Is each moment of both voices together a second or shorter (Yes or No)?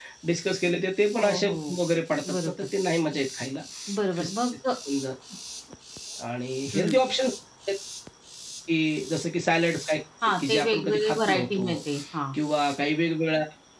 No